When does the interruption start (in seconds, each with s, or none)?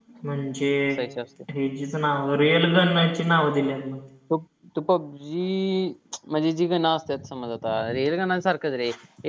none